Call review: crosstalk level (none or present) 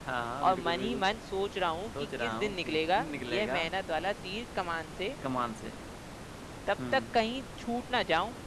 present